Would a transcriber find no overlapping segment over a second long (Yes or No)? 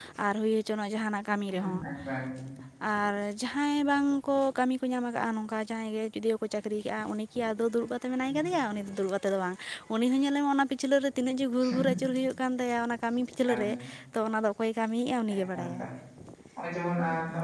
Yes